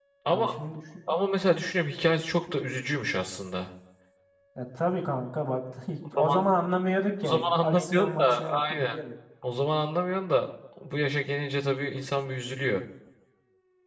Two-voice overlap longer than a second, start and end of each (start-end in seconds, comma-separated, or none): 7.2-9.0